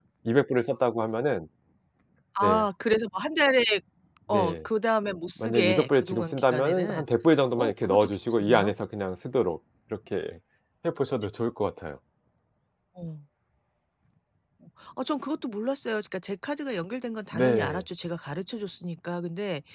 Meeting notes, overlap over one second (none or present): present